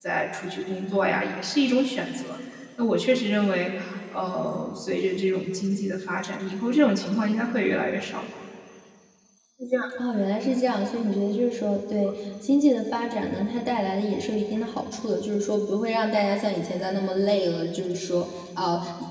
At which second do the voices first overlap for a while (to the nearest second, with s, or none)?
none